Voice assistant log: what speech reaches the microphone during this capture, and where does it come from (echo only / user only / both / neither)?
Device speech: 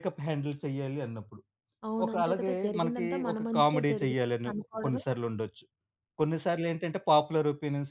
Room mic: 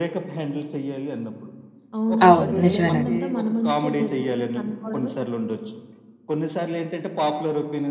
both